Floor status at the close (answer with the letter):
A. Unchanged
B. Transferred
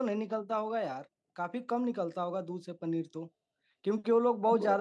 A